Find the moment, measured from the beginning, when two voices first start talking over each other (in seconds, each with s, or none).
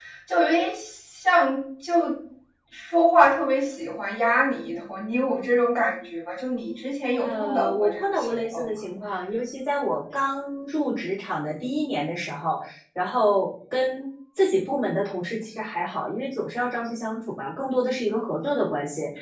7.2 s